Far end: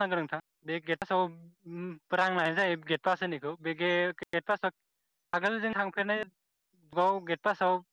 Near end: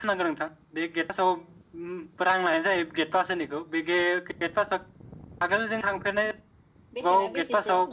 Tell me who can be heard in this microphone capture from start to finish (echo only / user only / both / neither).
both